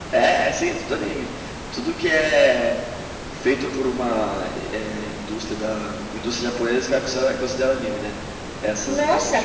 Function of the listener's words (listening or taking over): taking over